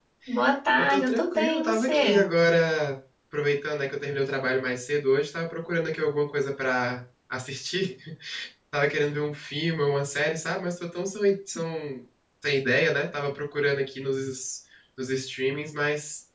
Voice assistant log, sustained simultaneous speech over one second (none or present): present